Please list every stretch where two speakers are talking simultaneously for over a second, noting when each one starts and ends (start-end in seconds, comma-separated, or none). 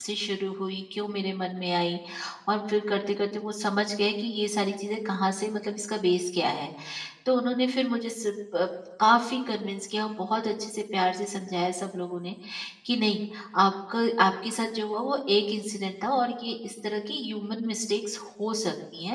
none